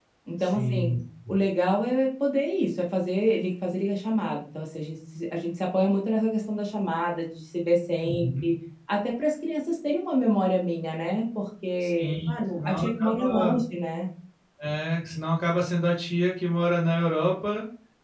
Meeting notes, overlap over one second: present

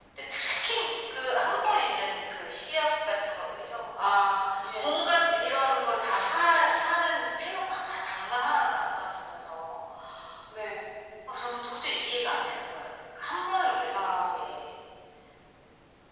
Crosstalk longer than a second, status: none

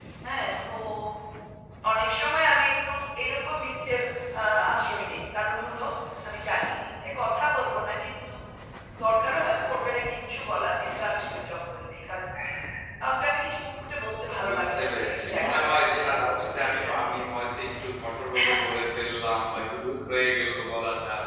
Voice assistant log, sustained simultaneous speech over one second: present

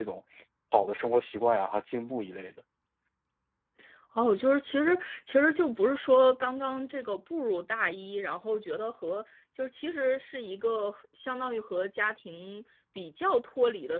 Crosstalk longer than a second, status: none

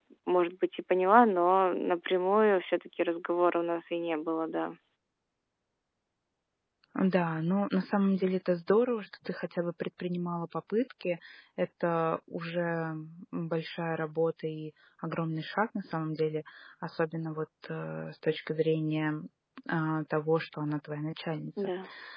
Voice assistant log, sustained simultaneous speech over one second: none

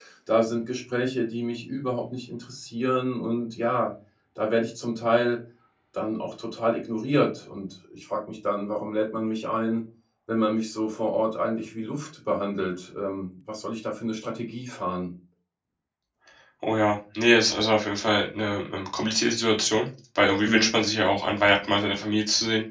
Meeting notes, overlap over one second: none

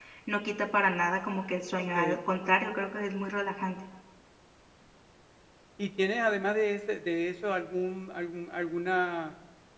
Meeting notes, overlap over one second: none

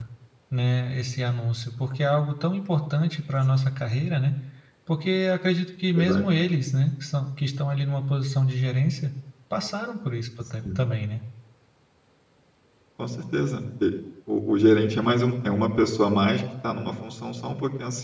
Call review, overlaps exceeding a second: none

